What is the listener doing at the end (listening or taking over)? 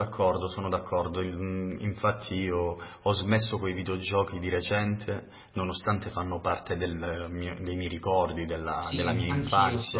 taking over